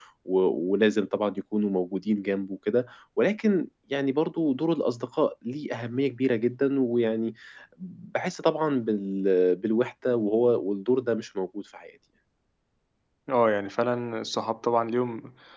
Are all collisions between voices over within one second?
Yes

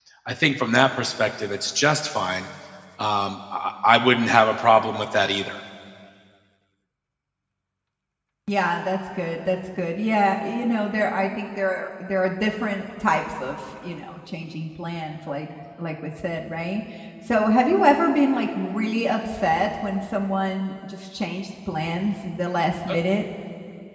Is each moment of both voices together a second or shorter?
Yes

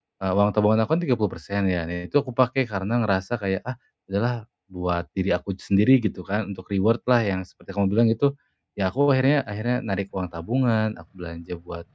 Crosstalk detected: No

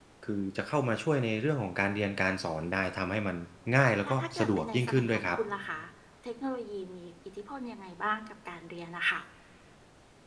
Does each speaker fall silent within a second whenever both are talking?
No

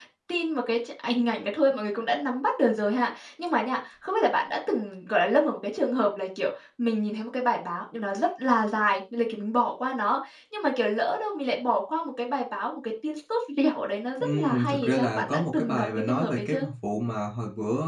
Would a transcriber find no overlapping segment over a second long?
No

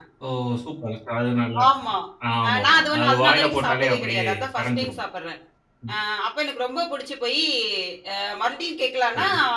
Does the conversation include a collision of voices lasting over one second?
Yes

